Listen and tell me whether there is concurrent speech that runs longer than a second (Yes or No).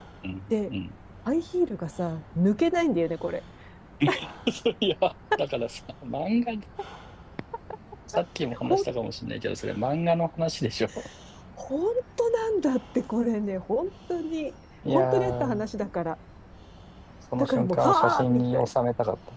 Yes